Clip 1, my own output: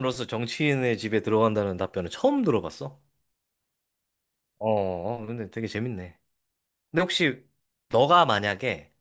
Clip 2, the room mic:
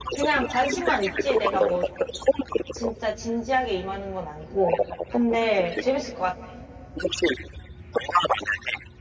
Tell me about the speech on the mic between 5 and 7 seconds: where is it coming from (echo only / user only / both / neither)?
both